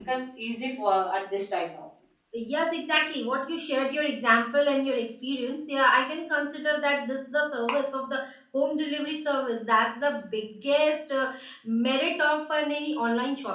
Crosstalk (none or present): none